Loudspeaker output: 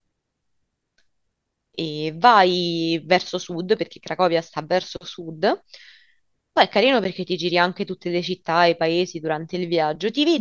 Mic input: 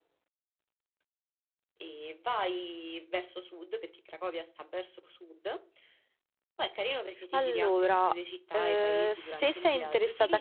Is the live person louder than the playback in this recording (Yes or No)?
Yes